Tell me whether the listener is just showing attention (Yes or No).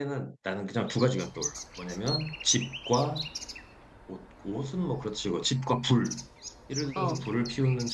Yes